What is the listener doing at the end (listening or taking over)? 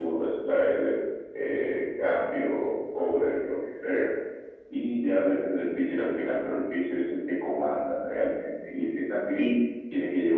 listening